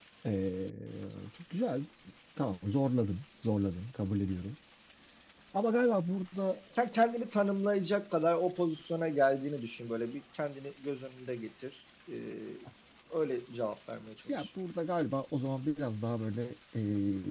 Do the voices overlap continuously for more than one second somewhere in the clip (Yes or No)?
No